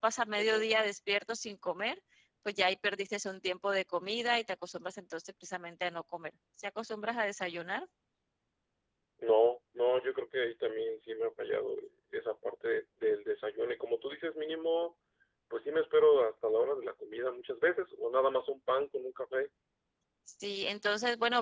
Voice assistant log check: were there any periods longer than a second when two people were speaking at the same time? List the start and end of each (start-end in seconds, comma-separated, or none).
none